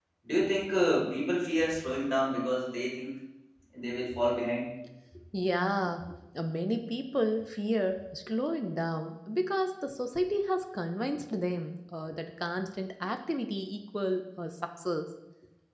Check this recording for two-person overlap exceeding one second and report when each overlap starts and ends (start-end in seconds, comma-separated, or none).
none